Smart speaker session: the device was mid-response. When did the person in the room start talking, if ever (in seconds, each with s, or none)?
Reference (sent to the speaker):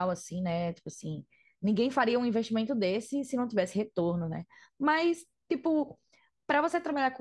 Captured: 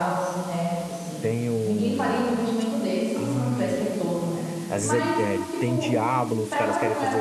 1.2 s